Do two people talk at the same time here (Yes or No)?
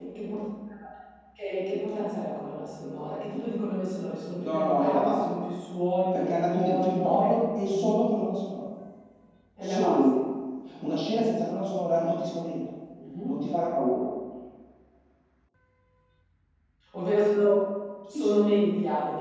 Yes